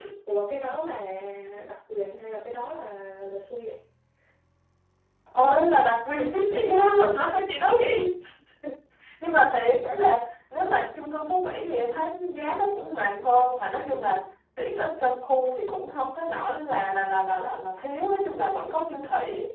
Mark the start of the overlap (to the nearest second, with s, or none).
none